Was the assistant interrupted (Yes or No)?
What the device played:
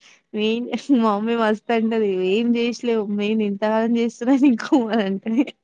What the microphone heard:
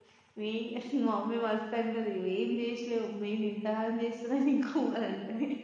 No